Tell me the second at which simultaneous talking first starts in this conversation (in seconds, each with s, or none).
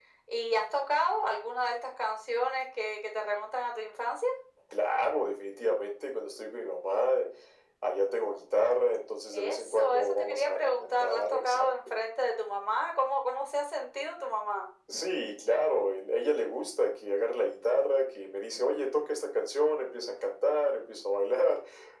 9.3 s